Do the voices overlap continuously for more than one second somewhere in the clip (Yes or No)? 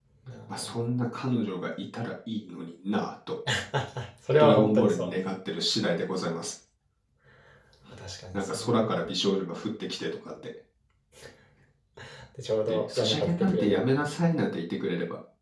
Yes